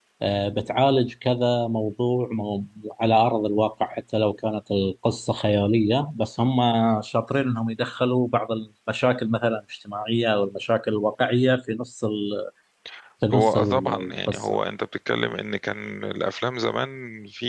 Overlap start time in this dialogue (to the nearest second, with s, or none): 13 s